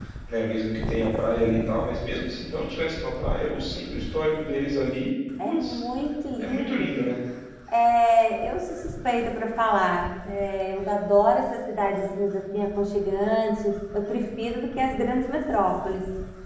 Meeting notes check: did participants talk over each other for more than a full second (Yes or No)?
No